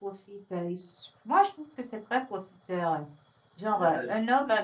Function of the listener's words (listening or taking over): listening